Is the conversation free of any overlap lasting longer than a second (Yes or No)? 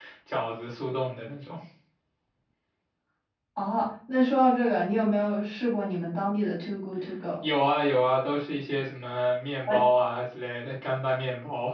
Yes